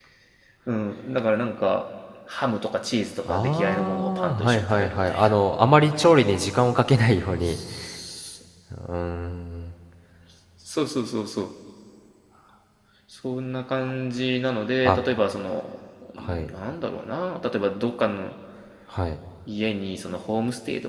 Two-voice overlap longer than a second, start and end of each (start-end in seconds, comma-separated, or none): 3.3-5.3